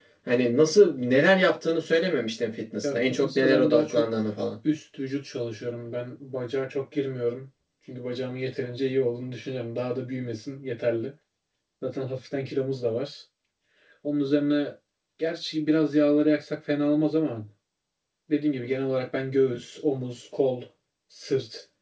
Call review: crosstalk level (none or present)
present